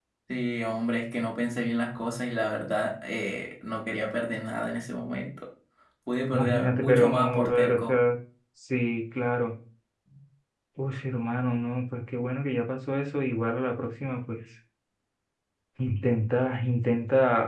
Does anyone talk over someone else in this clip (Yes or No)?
Yes